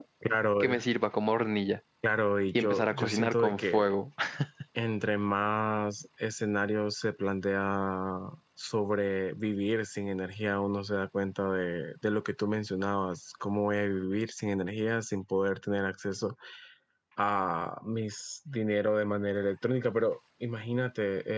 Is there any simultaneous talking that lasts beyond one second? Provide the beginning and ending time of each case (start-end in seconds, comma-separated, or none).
2.6-3.9